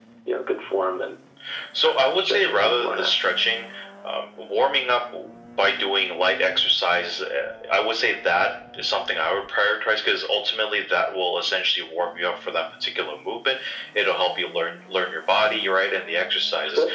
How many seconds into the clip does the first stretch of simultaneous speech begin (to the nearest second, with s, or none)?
2 s